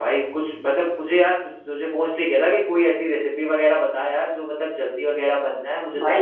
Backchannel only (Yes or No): No